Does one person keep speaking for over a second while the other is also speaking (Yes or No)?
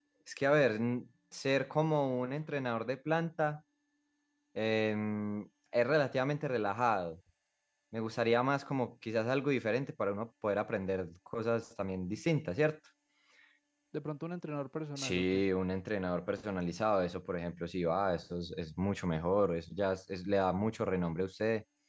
No